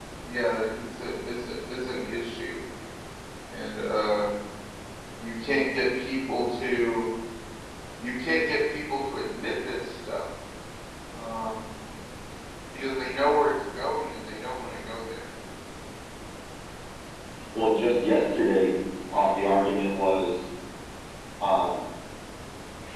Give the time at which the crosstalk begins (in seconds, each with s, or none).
none